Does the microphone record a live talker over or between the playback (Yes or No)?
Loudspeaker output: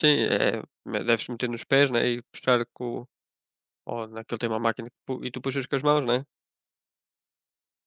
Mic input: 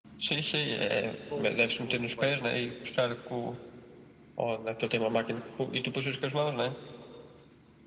Yes